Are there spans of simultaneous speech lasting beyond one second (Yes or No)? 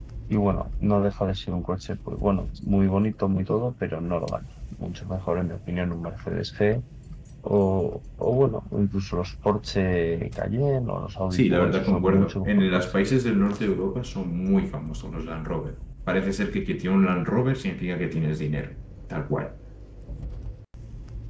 Yes